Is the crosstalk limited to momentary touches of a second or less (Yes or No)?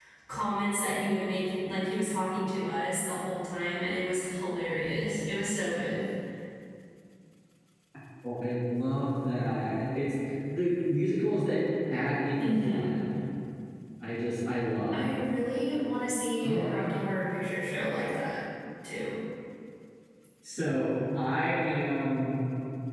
Yes